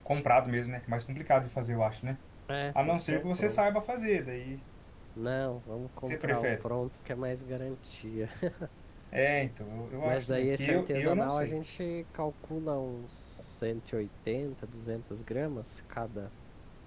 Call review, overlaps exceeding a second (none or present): present